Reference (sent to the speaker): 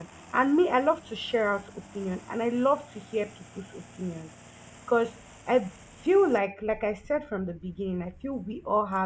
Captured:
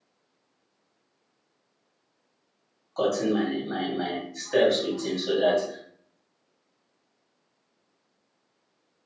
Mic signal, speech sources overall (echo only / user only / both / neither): user only